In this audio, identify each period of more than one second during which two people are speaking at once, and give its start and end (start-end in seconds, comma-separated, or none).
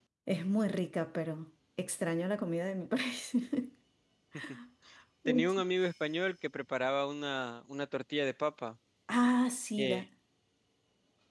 none